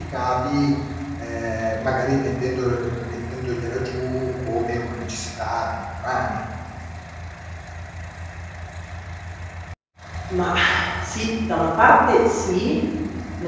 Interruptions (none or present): none